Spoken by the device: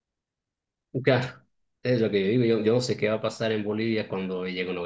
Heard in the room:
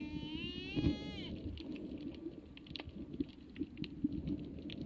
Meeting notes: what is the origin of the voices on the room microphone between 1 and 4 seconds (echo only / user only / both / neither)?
neither